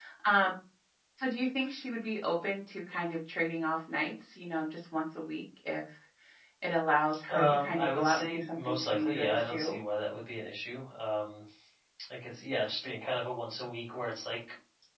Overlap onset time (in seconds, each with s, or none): 7.3 s